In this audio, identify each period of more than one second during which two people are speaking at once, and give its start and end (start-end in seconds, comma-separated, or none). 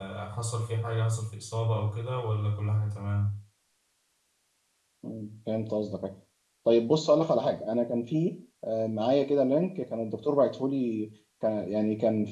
none